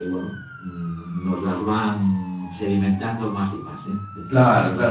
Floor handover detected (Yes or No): Yes